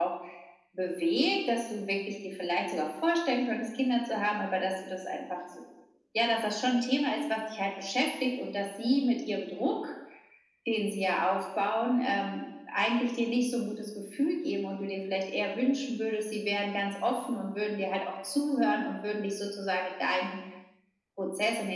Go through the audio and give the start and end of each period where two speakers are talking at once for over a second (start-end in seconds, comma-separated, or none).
none